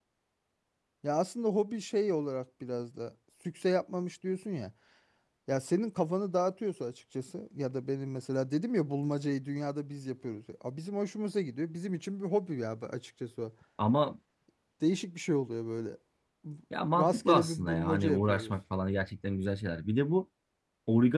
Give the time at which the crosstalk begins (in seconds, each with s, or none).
17.0 s